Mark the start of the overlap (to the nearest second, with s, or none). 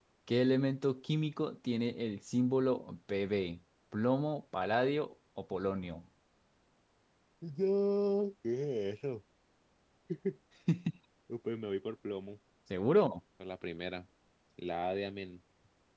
none